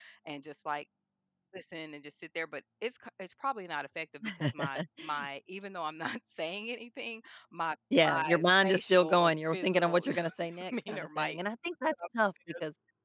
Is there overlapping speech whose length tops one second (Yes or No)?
Yes